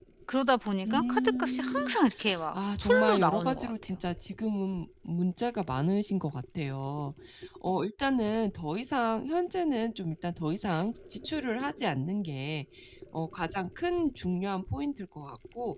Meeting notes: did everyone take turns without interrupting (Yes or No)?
No